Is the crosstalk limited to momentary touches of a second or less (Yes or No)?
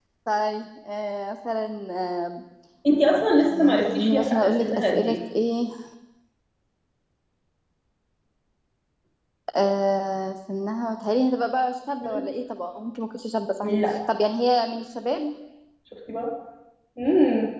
No